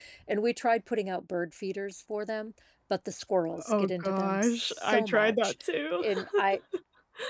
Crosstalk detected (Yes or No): Yes